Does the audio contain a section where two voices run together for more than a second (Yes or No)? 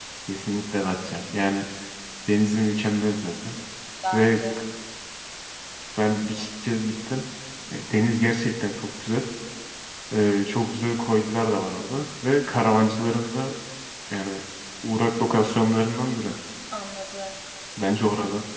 No